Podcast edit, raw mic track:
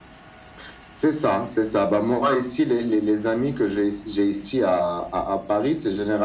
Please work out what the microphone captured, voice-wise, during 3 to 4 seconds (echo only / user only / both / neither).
echo only